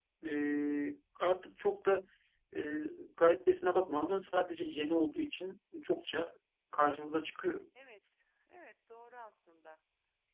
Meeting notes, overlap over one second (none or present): none